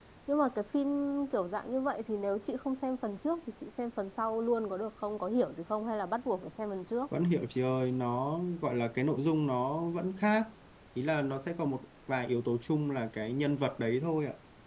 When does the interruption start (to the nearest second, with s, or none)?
none